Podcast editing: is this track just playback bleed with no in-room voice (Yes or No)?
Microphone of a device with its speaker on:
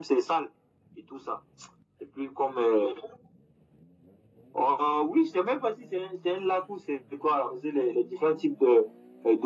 Yes